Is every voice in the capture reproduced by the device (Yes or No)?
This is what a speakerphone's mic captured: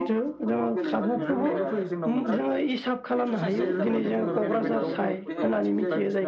No